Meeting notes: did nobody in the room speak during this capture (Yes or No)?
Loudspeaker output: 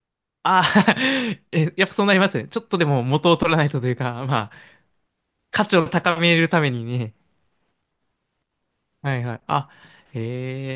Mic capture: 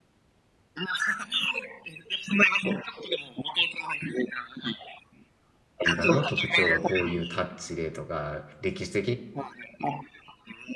No